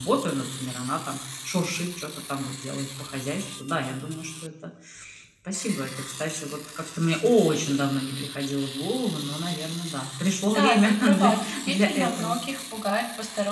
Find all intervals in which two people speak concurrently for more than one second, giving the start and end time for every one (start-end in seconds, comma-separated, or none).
10.5-12.4